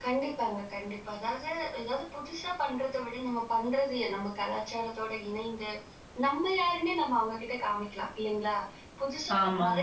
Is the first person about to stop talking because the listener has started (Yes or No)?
No